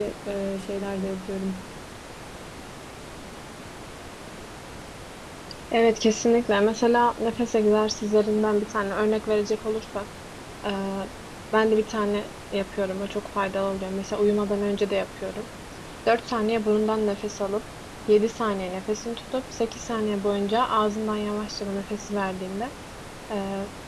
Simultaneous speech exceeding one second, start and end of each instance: none

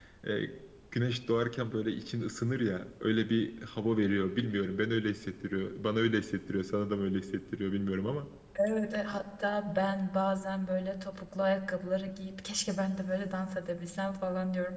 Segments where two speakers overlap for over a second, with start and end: none

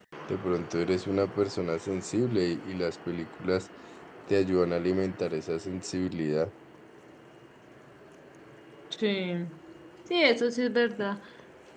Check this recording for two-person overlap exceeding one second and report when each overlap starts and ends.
none

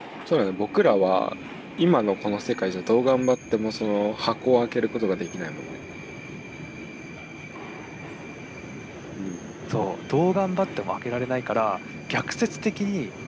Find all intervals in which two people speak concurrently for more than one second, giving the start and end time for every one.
none

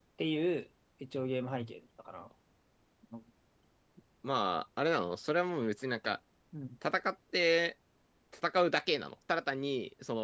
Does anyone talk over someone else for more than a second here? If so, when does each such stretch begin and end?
none

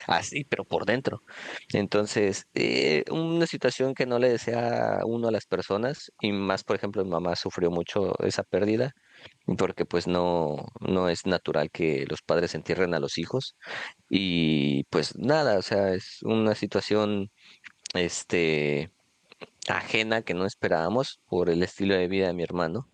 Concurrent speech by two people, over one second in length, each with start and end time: none

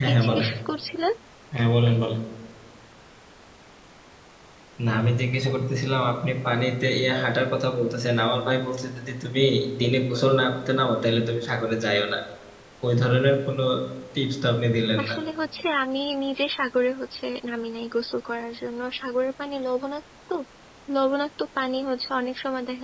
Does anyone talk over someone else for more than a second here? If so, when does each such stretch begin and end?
none

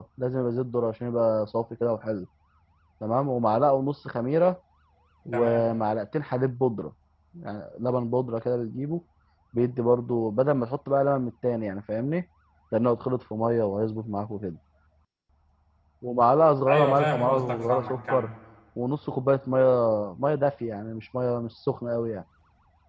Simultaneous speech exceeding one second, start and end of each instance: 16.7-18.3

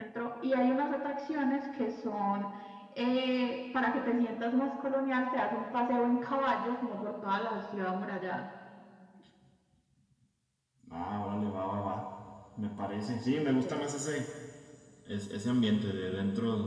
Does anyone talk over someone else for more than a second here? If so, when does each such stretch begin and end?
none

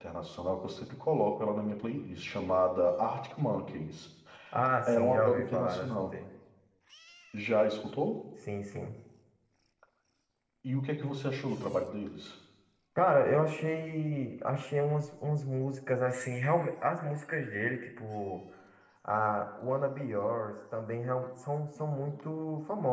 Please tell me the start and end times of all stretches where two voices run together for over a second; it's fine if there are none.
4.8-6.1

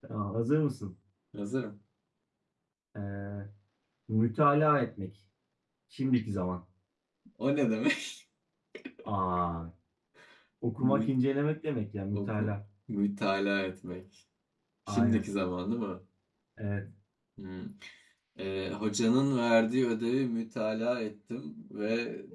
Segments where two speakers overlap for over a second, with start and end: none

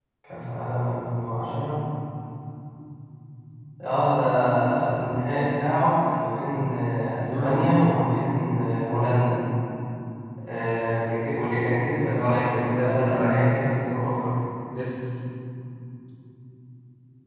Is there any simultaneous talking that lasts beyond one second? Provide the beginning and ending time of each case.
12.2-13.4

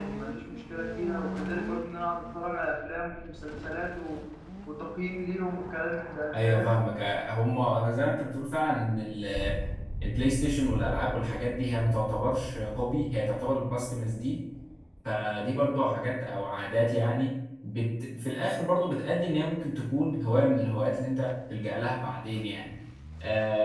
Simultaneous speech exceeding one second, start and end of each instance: none

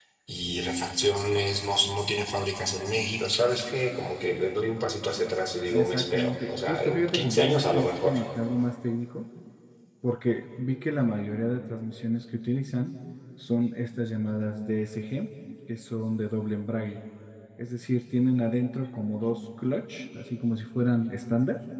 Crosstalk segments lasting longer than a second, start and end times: 5.7-8.1

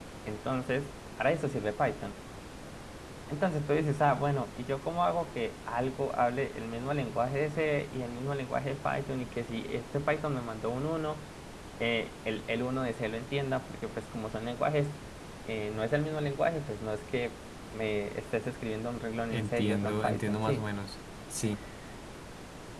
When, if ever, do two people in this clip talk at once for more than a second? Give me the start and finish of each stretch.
19.3-20.6

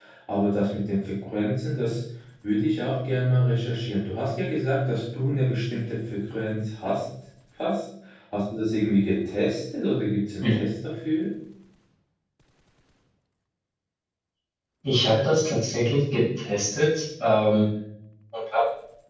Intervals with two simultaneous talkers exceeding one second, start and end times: none

